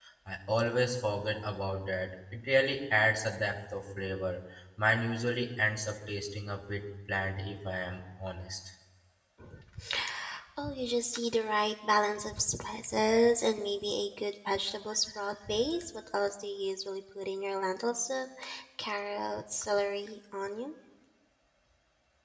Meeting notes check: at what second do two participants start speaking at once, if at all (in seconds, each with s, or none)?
none